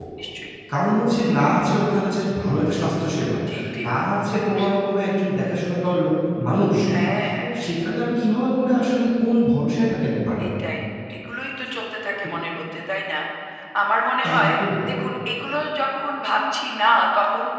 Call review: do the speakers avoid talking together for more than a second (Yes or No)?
Yes